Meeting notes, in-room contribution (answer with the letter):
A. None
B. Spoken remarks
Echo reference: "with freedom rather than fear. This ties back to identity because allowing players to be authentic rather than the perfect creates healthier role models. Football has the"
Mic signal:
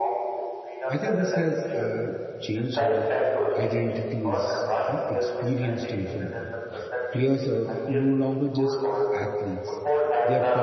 B